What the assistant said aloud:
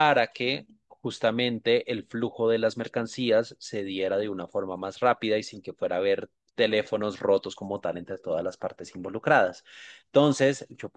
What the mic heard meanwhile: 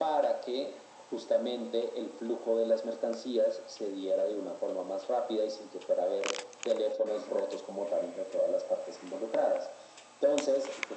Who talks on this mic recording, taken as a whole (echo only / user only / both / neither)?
echo only